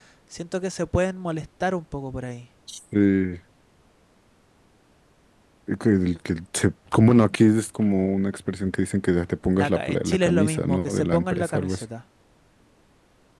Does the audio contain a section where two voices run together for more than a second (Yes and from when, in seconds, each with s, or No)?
Yes, from 9.6 s